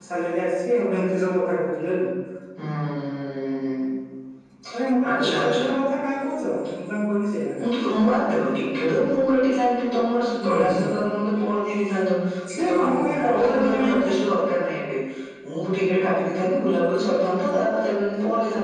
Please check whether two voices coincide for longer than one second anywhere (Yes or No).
Yes